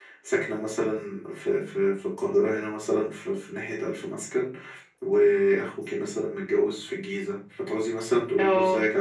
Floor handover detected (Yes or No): No